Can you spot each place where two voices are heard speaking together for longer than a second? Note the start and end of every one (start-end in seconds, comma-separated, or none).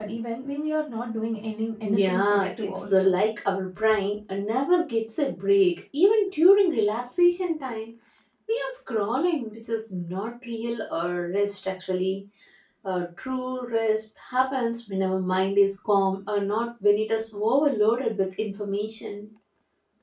1.8-3.2